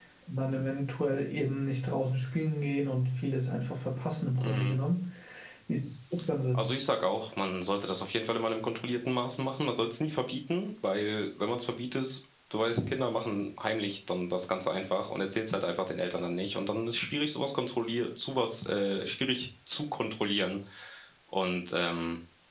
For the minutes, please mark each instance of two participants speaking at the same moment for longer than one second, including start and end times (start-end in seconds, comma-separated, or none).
none